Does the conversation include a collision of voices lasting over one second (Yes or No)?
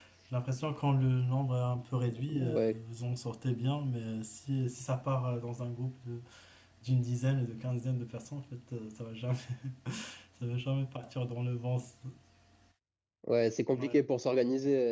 No